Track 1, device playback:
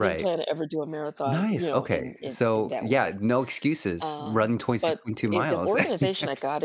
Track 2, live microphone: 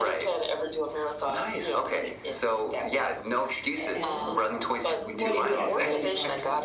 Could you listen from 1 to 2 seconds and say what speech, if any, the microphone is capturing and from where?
echo only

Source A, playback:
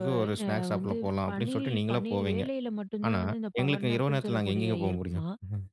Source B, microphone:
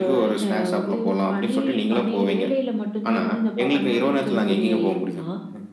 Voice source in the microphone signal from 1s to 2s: echo only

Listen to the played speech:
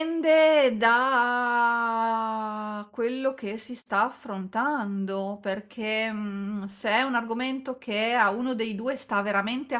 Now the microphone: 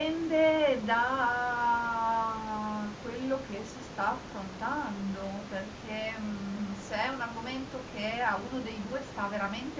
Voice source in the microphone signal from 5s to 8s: echo only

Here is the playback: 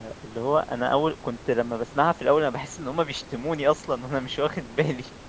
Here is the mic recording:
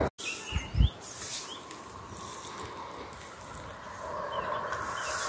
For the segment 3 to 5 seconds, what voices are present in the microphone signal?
neither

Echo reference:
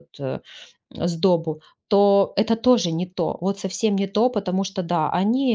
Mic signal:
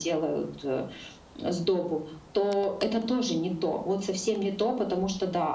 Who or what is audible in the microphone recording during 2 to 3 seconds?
echo only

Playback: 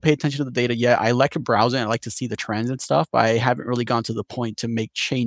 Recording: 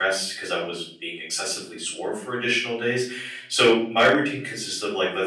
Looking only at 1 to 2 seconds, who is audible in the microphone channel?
user only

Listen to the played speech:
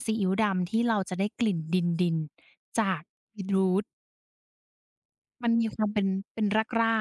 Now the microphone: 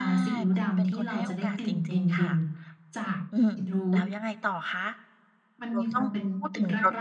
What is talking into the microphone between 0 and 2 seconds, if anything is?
both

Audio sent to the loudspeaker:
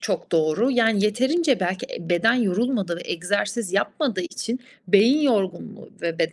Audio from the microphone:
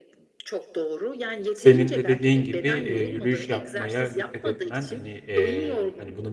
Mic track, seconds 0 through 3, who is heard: both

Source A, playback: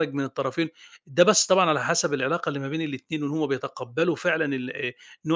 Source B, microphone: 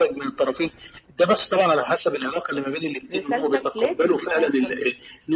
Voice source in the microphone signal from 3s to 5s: both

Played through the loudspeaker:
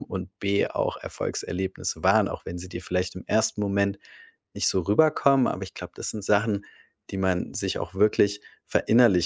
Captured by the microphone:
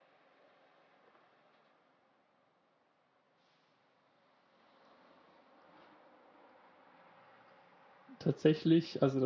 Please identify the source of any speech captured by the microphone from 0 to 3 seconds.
neither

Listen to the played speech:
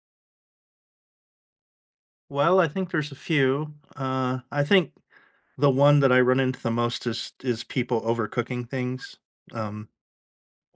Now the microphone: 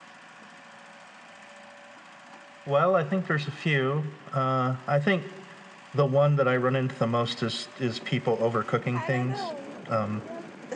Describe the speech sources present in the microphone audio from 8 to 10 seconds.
both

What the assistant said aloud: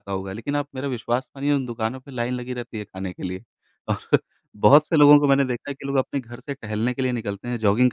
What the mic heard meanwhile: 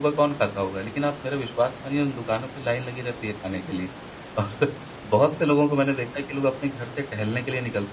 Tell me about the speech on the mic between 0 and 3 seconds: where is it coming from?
echo only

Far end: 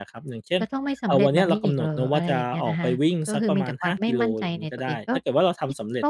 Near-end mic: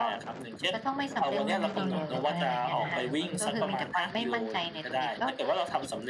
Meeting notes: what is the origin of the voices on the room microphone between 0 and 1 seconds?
echo only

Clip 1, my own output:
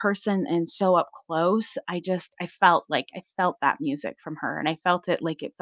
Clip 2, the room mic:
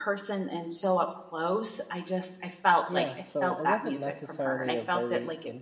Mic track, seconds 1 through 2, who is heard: echo only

